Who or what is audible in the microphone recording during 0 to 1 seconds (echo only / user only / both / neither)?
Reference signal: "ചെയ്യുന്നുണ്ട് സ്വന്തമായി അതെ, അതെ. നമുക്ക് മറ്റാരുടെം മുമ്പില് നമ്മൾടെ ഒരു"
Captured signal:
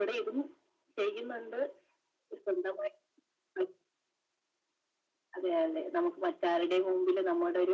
echo only